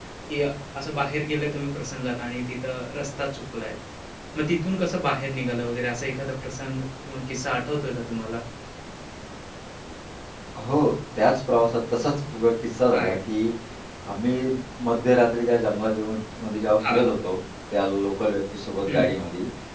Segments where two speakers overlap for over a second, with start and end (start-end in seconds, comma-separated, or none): none